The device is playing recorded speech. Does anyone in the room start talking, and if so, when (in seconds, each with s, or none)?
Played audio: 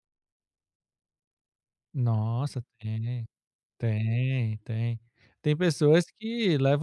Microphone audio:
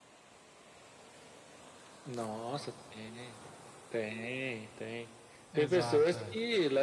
5.5 s